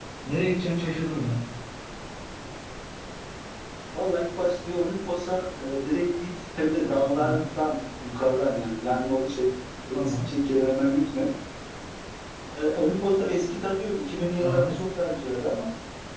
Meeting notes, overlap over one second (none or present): none